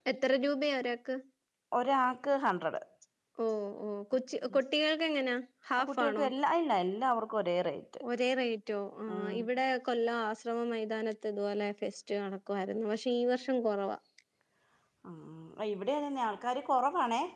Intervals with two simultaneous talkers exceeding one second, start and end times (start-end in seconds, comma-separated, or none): none